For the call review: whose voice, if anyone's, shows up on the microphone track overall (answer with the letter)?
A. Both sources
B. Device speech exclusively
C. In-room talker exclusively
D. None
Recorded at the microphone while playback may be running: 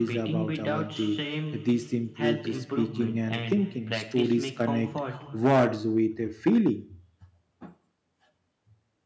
A